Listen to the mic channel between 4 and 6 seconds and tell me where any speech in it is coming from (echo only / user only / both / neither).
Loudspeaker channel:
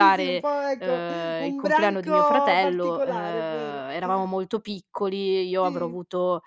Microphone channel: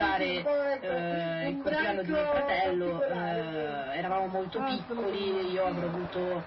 both